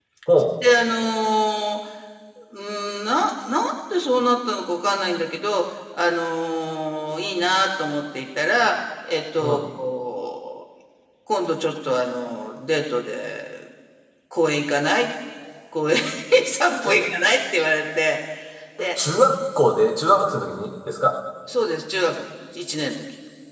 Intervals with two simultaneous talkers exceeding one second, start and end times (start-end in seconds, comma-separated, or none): none